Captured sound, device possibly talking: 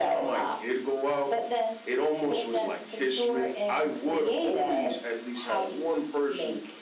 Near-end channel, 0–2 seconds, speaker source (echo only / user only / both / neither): echo only